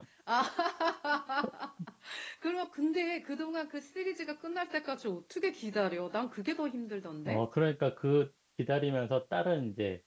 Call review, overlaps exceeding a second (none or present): none